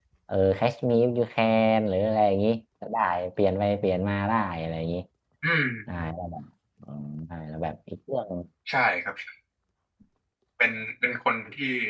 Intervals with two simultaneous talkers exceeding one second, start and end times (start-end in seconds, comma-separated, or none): none